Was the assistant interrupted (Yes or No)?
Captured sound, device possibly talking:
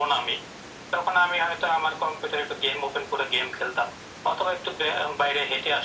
No